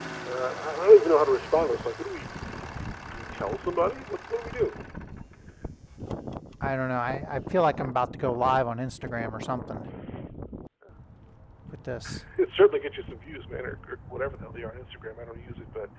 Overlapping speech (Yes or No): No